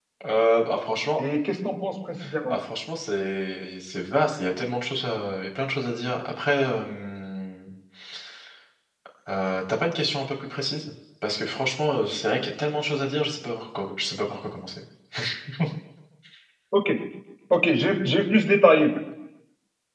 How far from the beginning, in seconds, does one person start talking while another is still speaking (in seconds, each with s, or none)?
none